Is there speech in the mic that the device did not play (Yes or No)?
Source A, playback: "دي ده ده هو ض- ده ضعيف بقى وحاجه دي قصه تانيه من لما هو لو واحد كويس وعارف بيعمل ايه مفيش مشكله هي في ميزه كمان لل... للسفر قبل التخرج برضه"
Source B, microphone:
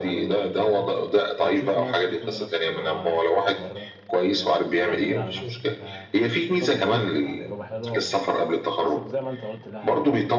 Yes